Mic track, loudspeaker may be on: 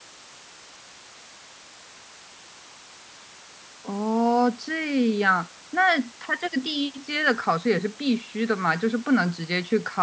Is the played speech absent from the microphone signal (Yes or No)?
Yes